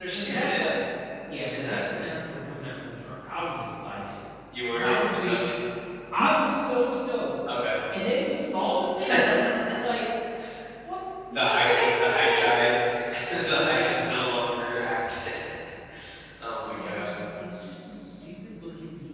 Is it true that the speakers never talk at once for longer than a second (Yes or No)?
No